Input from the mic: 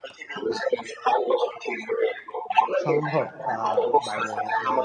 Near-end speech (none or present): present